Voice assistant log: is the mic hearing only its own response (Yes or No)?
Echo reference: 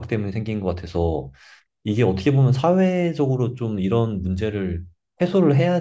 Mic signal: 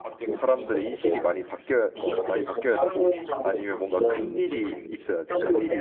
No